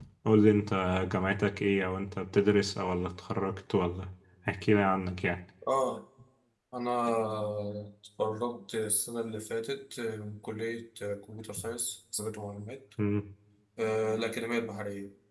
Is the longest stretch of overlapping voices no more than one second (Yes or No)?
Yes